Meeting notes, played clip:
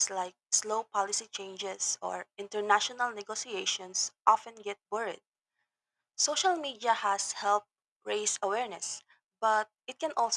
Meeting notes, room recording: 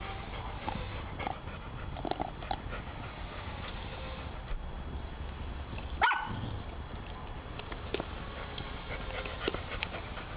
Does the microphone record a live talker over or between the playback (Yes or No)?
No